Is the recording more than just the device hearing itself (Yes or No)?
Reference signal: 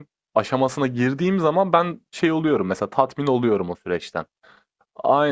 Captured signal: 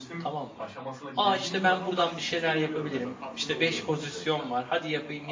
Yes